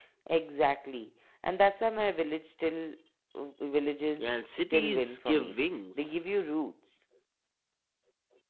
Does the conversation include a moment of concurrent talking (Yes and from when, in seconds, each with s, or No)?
Yes, from 4.2 s